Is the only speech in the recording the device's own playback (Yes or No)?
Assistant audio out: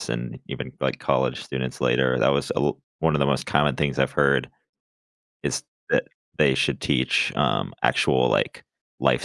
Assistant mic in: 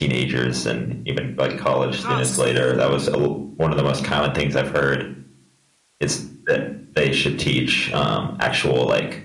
No